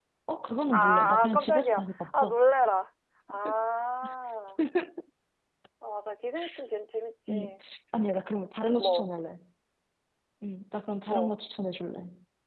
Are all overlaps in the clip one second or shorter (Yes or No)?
No